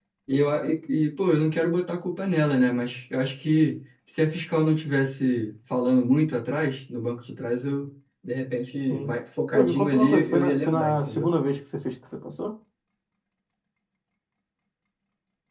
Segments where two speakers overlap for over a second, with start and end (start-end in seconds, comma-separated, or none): 9.5-11.3